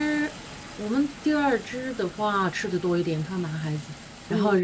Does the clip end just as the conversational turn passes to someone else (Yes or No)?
No